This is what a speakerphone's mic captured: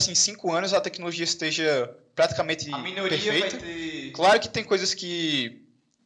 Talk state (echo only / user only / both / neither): both